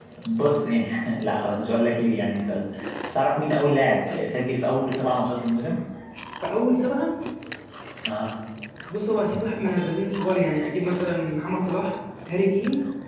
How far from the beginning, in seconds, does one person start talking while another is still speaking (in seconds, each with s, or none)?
none